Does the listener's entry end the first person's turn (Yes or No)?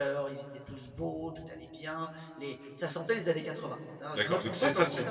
Yes